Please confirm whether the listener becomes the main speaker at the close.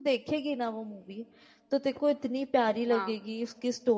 No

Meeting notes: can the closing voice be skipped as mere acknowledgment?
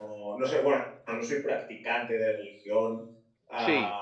Yes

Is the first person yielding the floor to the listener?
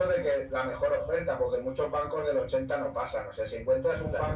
No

